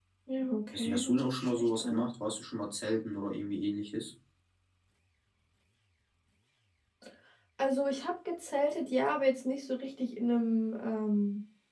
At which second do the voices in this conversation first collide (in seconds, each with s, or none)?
0.7 s